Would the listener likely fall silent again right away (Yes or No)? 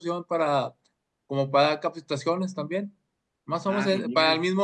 Yes